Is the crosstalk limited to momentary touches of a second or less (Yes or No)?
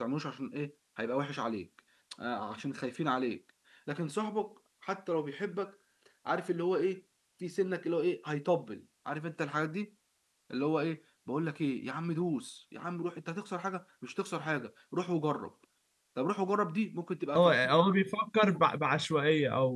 Yes